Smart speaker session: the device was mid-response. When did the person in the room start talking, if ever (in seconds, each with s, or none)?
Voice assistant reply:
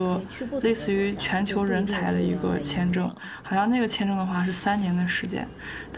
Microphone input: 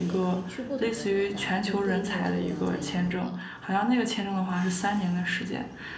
none